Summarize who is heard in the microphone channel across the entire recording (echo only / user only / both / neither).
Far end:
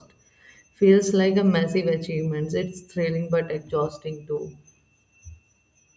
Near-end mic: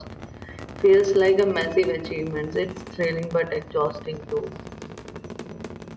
echo only